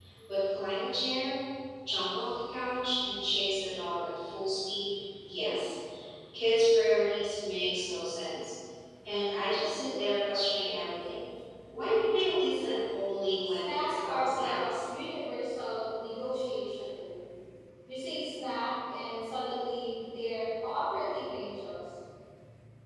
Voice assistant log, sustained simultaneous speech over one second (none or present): present